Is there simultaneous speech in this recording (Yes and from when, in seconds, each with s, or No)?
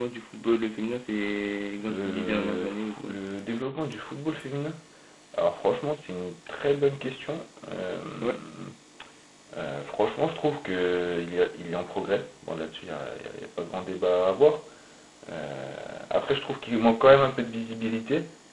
Yes, from 1.8 s